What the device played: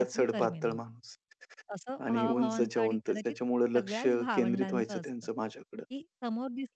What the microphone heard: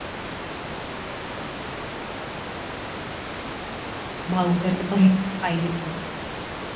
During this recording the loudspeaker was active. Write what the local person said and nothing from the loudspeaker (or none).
भाऊ तर का बहीण तर पाहिजेच म्हणून.